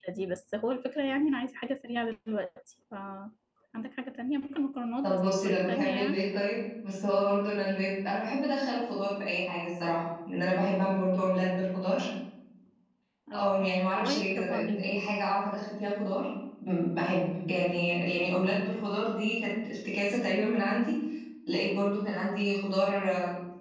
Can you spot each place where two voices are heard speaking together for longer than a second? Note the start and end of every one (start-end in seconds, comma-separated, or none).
5.0-6.2, 13.3-15.0